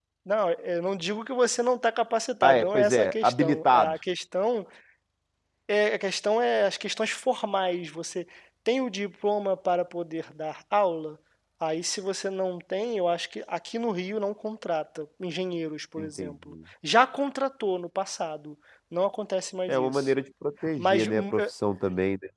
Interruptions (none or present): present